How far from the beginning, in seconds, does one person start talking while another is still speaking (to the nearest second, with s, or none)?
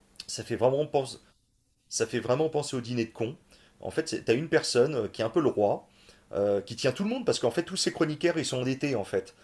none